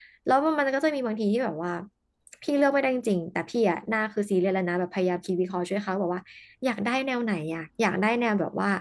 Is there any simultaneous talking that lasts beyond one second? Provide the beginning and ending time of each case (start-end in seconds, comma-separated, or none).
none